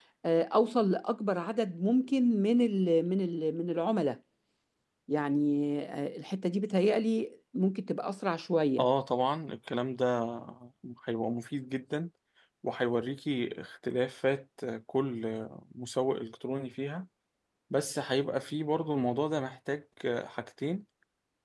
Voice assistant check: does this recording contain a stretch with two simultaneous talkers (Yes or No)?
No